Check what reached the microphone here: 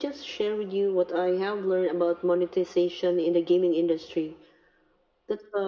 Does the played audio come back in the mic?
Yes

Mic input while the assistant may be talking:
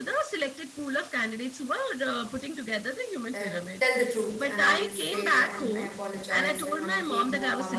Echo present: Yes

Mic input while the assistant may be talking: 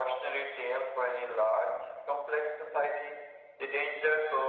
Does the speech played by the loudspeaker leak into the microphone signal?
Yes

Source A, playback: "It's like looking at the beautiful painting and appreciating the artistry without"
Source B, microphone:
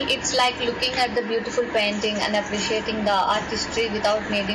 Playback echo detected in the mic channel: Yes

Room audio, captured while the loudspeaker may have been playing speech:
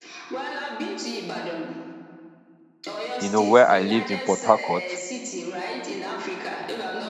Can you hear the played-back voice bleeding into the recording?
Yes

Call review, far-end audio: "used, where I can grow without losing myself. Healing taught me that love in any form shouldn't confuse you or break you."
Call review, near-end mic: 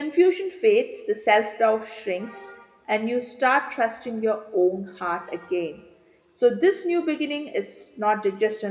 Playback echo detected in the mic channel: No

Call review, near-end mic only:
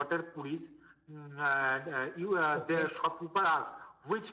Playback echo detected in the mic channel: Yes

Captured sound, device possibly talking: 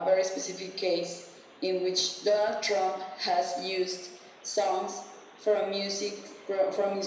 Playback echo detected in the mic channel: Yes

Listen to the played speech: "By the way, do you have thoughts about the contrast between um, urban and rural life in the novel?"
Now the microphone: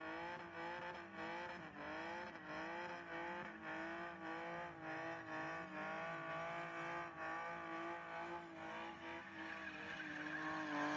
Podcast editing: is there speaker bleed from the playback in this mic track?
No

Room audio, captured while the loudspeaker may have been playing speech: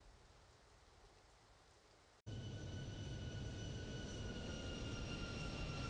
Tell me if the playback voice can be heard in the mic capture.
No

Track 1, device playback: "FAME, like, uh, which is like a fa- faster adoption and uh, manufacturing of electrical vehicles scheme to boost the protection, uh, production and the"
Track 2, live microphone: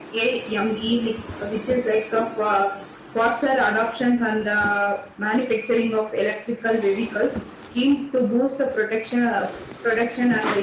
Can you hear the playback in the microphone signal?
Yes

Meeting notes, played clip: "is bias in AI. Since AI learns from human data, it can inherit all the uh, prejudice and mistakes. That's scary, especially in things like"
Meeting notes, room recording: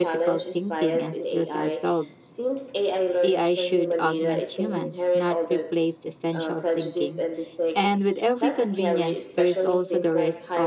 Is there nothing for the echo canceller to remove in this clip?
No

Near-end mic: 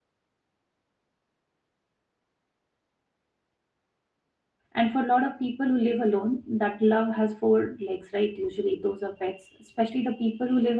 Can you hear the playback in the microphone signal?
No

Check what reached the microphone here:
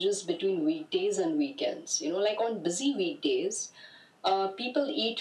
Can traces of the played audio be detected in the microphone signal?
Yes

